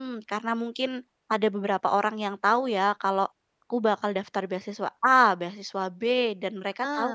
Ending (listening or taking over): listening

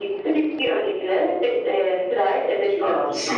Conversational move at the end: taking over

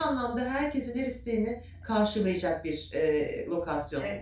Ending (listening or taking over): taking over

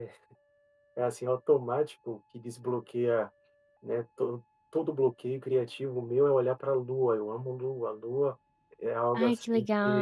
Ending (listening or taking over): taking over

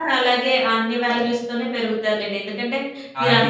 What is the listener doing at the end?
listening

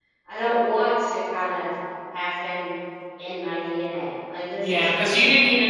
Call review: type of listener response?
taking over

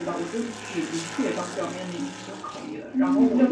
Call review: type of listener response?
taking over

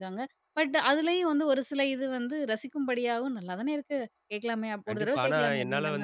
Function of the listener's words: taking over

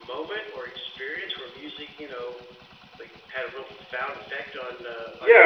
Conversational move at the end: taking over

